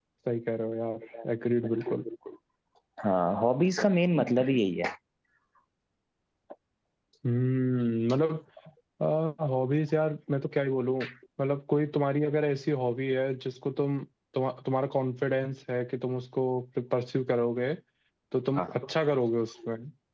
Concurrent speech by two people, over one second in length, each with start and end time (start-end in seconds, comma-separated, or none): none